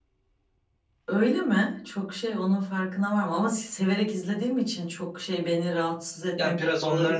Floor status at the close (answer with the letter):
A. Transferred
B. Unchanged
A